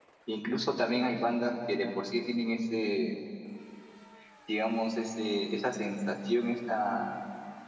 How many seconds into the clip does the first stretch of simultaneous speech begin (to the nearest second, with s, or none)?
none